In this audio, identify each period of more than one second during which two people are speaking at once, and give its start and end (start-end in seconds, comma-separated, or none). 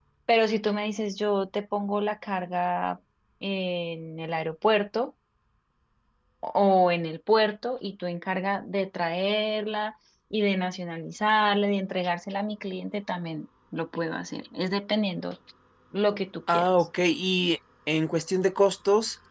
none